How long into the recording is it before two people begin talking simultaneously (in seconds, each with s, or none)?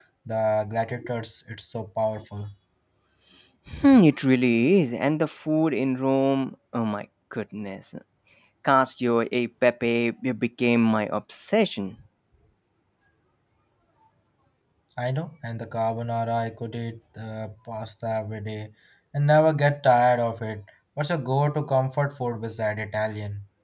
none